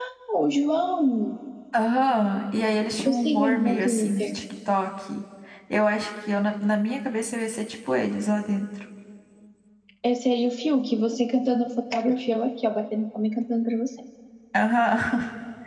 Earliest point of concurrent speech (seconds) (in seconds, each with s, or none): 3.0 s